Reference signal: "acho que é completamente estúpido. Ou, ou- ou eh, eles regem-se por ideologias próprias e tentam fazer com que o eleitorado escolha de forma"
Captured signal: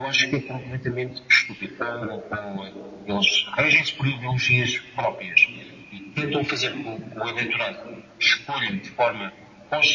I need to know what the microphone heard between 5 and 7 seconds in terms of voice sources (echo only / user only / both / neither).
echo only